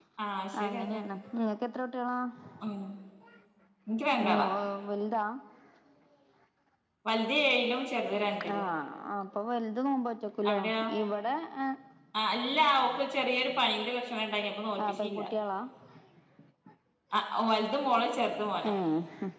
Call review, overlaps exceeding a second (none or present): none